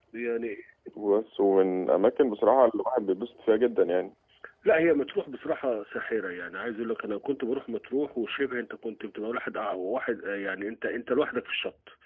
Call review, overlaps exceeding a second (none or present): none